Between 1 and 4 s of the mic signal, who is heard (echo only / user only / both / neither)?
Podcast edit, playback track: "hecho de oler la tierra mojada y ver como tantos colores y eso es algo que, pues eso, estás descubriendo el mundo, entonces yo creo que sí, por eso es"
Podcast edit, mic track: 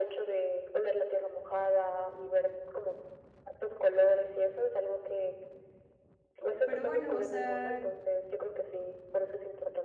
echo only